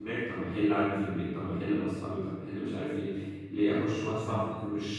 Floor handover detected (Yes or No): No